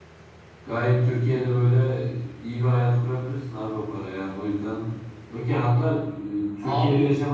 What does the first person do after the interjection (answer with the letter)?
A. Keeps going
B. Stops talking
B